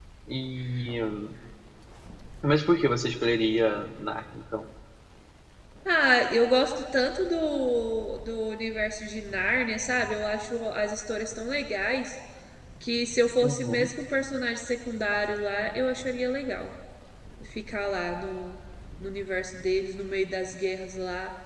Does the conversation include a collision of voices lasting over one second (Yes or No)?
No